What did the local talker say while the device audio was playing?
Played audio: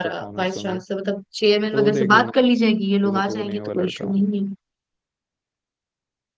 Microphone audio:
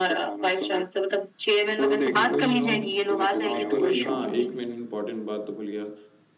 और कोई नहीं और क्या करवाएं? और तो वही हाँ एक मैंने इम्पोर्टेंट बात तो भूल गया

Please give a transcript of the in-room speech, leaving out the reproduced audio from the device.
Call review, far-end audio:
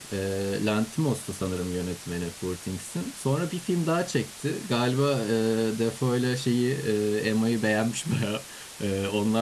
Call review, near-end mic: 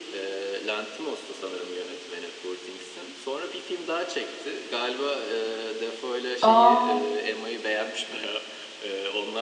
Aa.

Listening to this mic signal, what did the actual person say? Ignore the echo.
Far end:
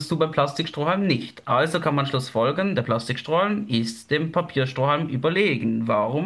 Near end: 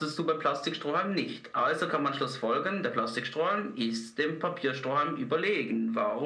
none

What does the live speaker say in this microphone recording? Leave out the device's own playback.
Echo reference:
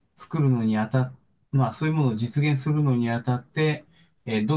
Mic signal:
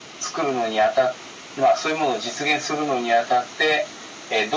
none

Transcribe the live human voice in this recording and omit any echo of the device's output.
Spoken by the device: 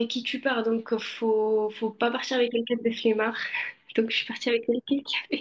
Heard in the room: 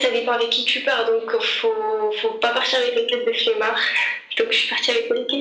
none

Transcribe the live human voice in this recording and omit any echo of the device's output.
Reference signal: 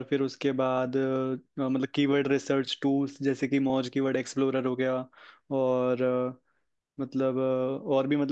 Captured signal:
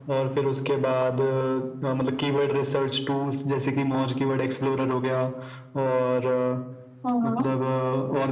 हाँ हाँ

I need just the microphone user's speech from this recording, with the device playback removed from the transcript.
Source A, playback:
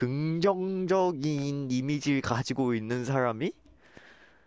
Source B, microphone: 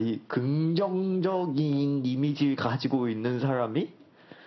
none

